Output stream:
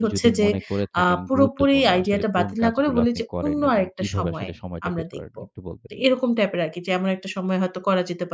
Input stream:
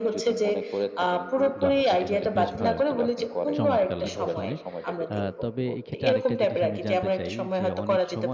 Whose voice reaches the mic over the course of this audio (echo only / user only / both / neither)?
both